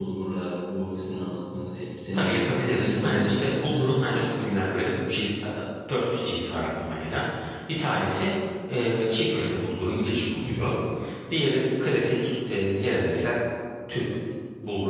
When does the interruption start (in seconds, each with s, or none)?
2.2 s